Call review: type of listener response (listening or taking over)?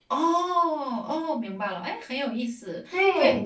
taking over